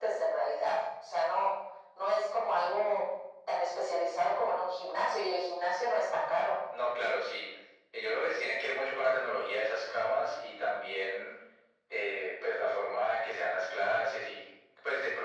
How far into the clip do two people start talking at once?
none

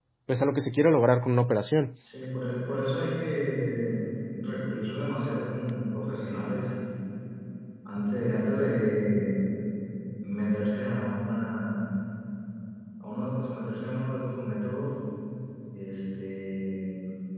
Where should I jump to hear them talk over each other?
none

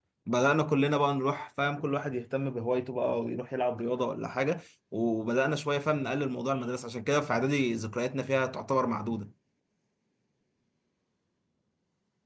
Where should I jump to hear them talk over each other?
none

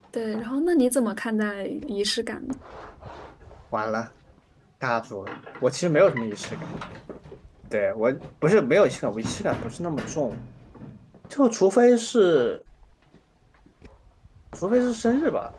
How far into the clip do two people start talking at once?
none

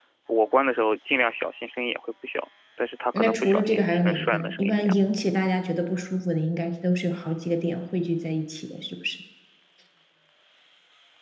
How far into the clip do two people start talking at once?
3.1 s

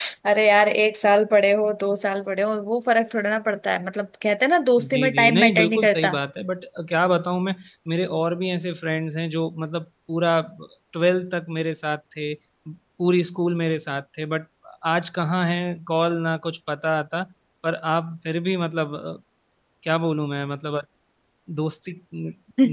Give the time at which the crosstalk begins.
4.8 s

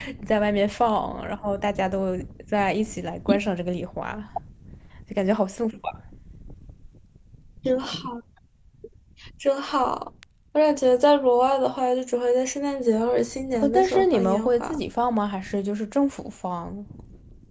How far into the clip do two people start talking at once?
13.5 s

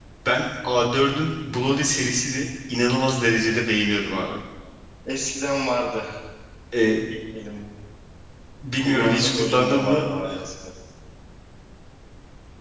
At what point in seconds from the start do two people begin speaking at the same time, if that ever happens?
8.8 s

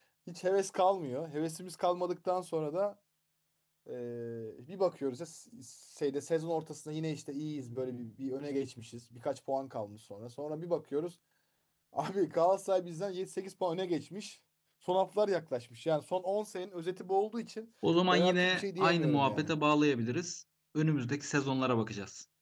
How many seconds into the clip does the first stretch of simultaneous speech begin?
18.1 s

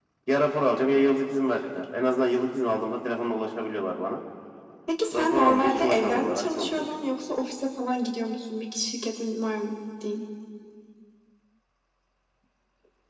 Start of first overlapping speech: 5.1 s

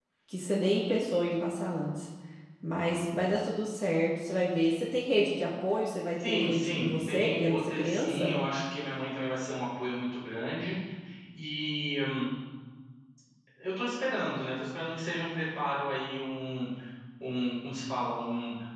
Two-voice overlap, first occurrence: 6.2 s

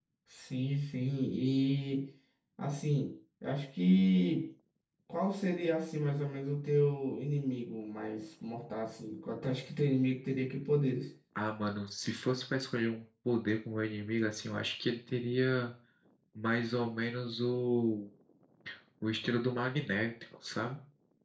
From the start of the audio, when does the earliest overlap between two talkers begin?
none

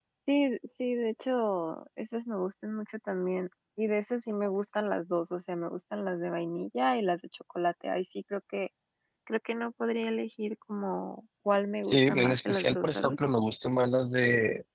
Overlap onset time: 11.9 s

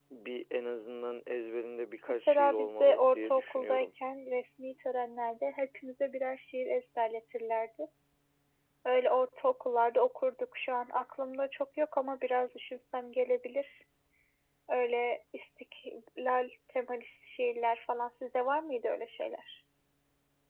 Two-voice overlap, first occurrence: 2.3 s

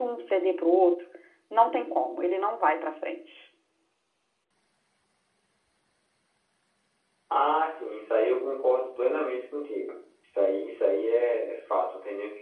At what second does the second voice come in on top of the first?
none

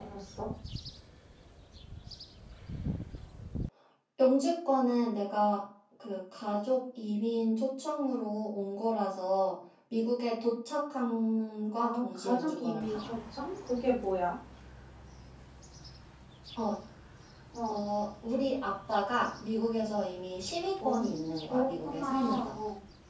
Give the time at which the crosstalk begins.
11.8 s

